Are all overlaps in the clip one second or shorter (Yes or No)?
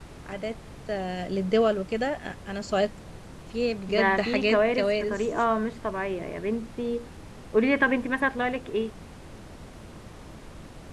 No